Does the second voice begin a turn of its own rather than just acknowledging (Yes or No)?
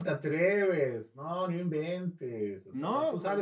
No